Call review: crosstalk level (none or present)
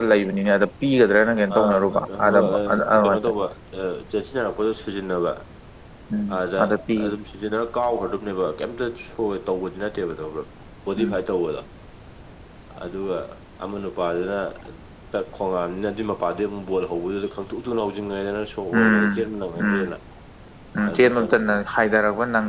present